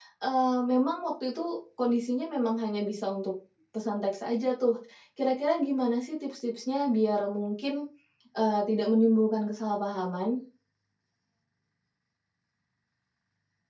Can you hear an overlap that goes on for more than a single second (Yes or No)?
No